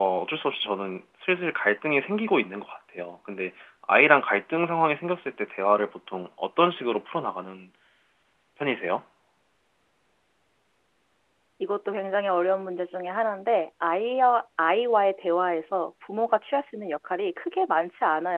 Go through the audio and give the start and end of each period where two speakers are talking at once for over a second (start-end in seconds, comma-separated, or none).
none